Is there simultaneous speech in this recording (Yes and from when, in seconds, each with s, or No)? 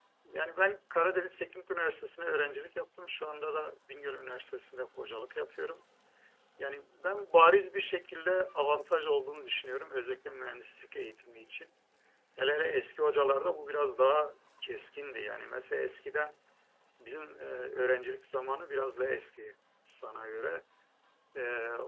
No